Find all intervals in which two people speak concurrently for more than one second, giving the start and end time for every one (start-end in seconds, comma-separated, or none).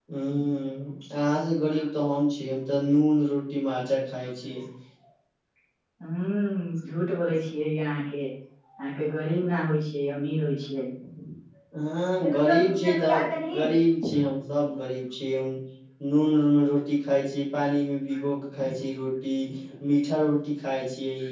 12.2-13.6